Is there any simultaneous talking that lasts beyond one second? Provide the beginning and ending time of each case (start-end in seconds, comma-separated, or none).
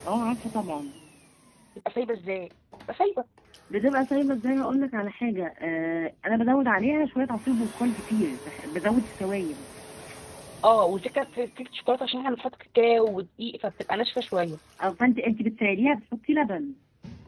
none